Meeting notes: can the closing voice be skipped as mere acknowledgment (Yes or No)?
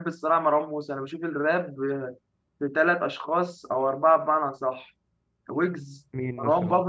Yes